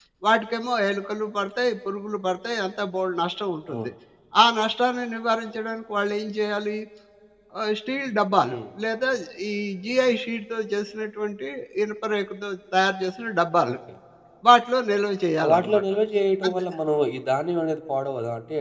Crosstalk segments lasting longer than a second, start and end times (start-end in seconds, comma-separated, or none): none